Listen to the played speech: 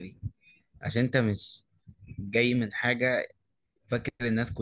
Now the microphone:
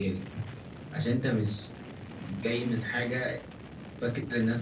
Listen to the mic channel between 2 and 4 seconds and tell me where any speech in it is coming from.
echo only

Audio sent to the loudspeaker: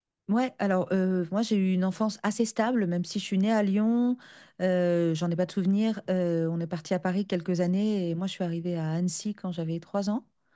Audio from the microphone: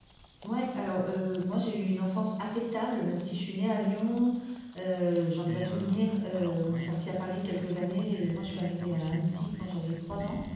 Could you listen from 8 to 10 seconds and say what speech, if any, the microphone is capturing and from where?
both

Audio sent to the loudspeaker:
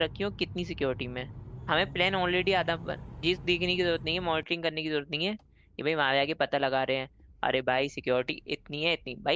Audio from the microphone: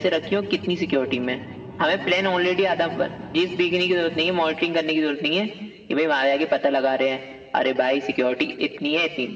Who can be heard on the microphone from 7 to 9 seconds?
echo only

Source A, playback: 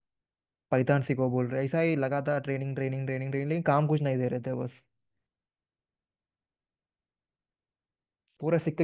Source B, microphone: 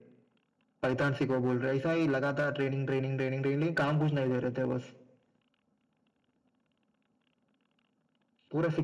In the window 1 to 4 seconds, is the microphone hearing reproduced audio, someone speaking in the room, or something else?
echo only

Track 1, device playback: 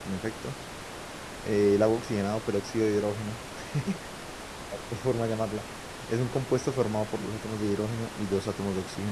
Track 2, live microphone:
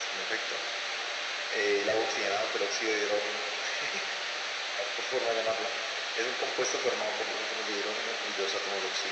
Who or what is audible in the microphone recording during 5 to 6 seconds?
echo only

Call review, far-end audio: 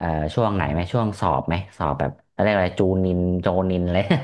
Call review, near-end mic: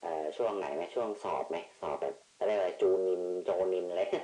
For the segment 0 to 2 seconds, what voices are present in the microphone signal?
echo only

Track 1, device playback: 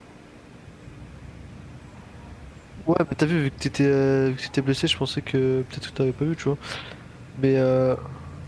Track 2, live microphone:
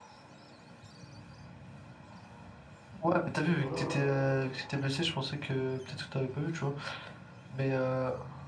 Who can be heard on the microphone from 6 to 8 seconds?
echo only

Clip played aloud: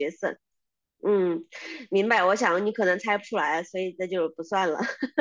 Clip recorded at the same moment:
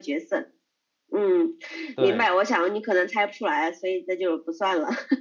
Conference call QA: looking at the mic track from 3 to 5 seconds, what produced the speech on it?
echo only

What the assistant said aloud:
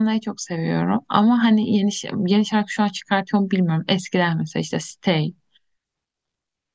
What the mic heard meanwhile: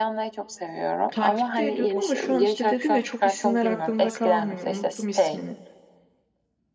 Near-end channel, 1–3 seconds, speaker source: both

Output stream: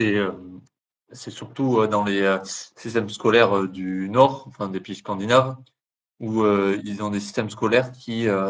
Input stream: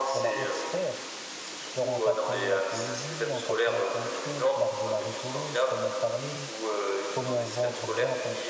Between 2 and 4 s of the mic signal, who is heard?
both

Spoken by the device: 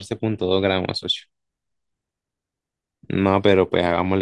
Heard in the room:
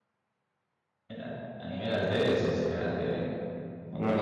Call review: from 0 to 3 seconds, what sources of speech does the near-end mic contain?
user only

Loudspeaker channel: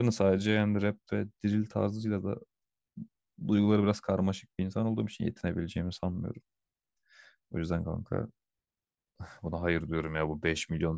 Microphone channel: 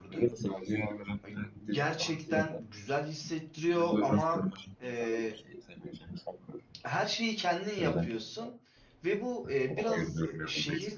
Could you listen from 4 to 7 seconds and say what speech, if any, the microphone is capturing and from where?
both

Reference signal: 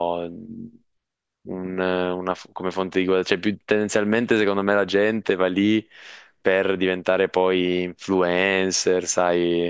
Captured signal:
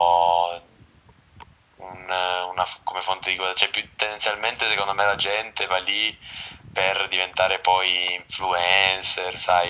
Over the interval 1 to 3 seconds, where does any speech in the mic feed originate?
echo only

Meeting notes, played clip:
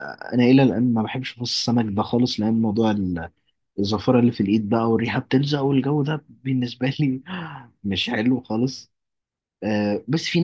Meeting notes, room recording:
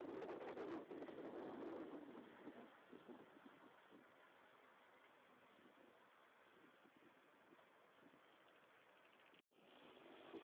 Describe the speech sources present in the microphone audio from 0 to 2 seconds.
neither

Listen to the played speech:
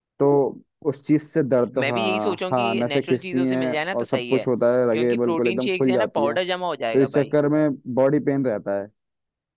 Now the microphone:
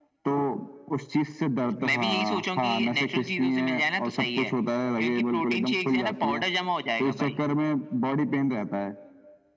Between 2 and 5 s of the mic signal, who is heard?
echo only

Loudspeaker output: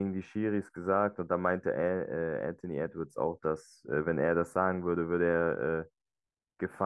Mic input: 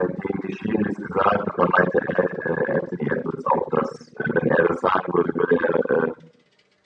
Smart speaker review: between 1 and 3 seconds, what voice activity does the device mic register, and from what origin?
echo only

